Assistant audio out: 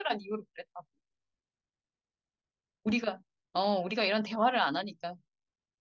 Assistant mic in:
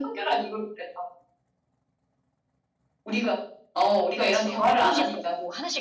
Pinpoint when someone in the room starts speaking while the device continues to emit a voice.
4.2 s

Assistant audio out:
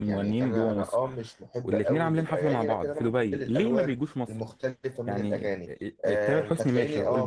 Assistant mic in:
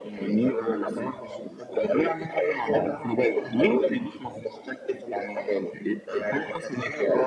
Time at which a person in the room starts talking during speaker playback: none

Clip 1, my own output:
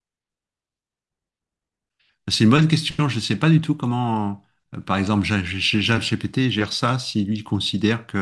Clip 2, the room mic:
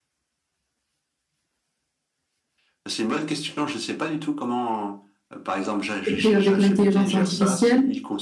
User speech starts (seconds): 6.1 s

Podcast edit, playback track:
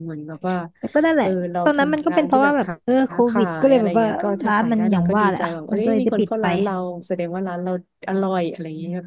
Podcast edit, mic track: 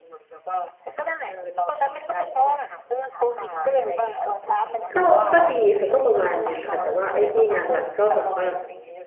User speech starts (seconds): 4.9 s

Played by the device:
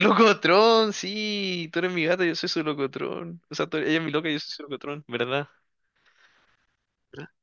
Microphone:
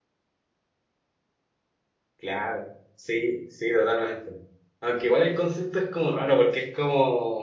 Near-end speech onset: 2.1 s

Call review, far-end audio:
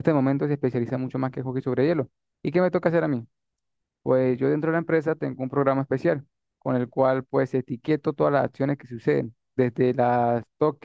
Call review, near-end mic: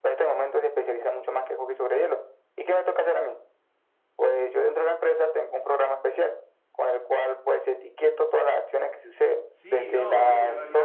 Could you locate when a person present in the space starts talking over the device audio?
9.5 s

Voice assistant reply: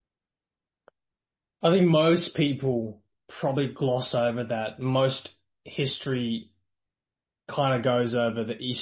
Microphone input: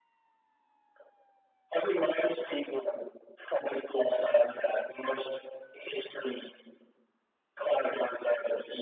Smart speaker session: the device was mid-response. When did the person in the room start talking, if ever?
none

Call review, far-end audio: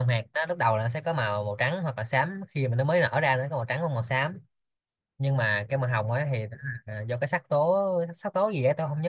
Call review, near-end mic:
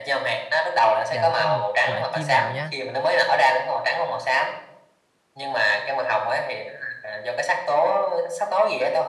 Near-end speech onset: 1.1 s

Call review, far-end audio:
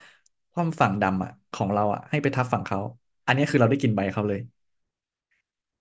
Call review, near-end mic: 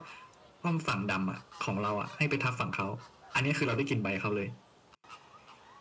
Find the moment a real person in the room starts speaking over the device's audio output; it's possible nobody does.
none

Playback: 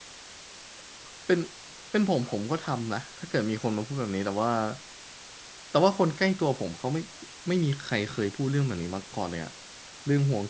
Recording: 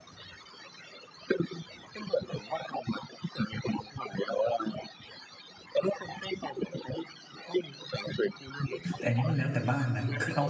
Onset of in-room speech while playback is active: 8.9 s

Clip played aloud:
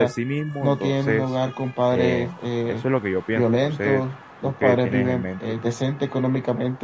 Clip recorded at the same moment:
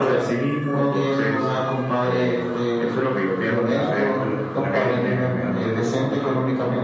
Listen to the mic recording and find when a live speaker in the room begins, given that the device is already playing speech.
3.5 s

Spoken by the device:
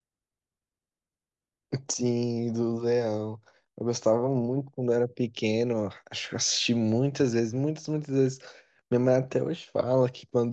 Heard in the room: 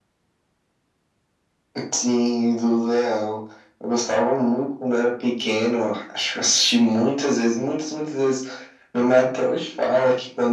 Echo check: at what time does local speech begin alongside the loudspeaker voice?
none

